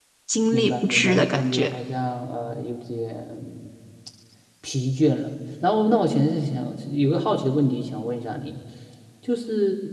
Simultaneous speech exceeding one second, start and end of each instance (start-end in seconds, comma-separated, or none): 0.5-1.7